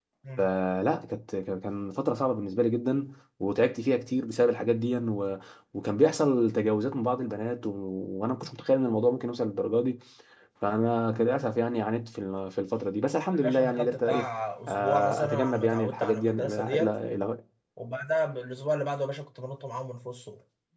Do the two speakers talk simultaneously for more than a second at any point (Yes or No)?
Yes